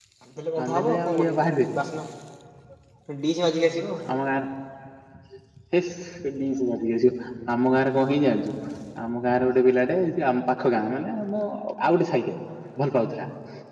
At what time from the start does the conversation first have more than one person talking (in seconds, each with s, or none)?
0.6 s